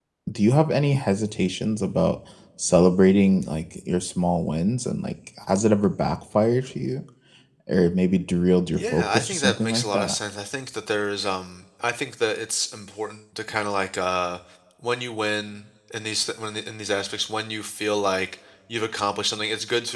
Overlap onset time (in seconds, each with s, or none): 8.8 s